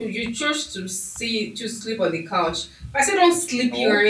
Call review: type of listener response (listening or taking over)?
listening